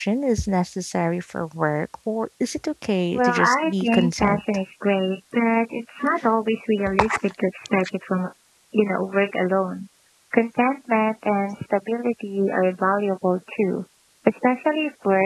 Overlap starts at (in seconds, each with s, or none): 3.1 s